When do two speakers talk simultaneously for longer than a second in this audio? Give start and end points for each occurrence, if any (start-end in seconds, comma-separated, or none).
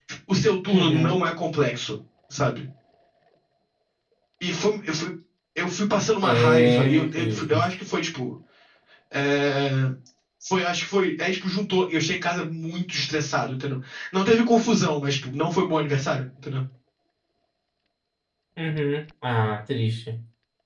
6.2-7.5